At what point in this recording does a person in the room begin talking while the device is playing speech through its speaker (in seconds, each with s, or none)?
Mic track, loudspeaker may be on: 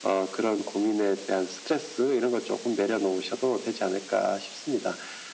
none